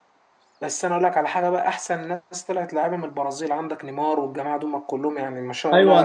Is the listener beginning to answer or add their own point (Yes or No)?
Yes